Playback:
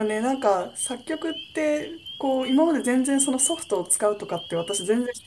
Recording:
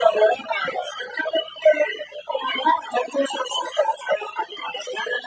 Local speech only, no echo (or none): none